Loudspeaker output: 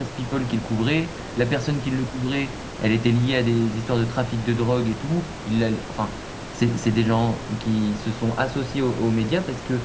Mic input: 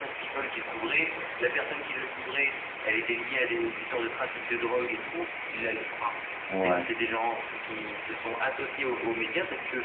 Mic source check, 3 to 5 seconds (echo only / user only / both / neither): echo only